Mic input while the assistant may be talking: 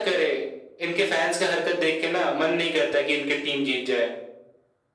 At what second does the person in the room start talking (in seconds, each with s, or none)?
none